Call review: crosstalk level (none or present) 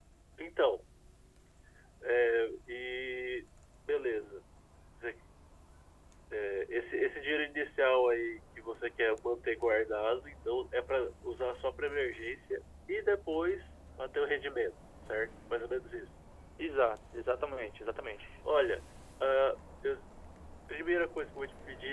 none